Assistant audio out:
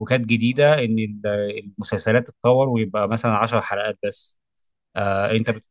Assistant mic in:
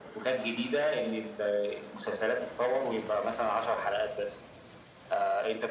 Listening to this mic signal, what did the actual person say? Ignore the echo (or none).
none